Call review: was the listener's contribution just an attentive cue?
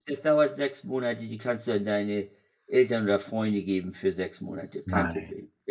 No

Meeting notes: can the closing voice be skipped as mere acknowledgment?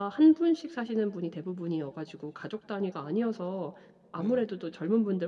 Yes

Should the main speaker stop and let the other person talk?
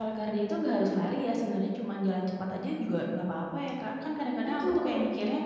No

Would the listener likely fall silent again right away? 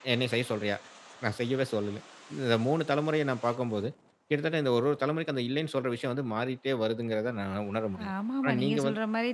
No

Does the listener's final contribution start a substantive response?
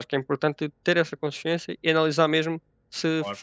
No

